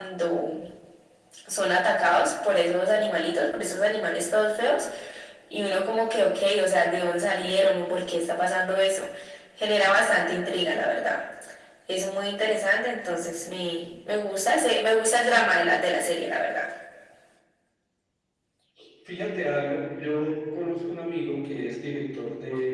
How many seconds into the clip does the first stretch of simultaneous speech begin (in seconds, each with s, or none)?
none